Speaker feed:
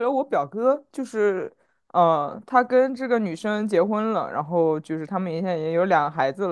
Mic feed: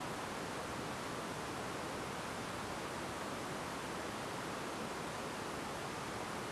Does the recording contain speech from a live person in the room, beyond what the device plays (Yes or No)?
No